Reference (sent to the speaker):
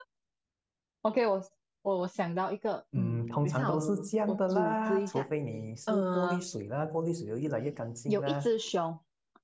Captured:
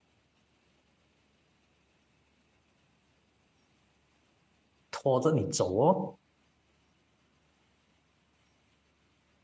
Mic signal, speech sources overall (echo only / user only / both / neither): user only